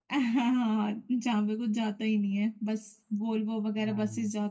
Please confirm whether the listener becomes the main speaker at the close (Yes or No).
No